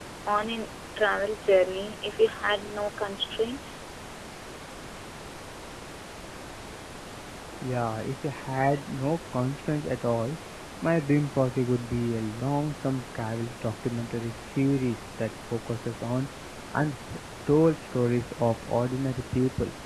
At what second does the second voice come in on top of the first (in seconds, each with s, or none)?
none